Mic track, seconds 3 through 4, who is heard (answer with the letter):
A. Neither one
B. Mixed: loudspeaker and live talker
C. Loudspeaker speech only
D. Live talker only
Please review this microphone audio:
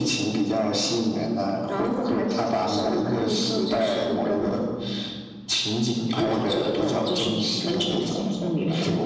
C